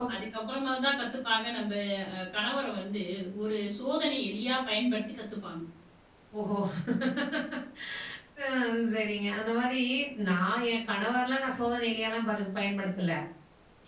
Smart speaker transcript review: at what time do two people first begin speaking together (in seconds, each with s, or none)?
none